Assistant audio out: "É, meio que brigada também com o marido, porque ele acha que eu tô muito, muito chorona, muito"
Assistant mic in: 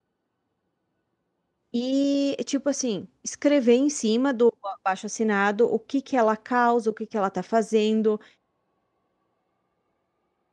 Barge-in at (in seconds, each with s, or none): 1.7 s